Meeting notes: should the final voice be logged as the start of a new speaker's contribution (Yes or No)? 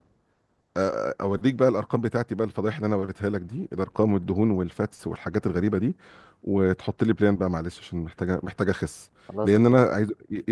No